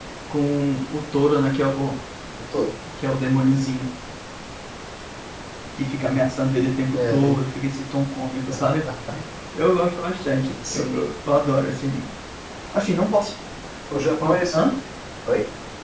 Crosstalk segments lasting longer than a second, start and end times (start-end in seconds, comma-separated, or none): none